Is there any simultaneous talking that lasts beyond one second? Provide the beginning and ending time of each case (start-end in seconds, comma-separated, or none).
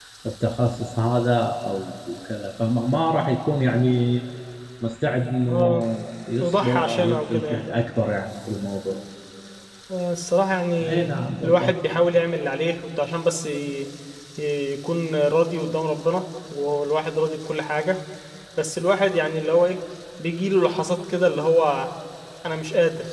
6.4-7.6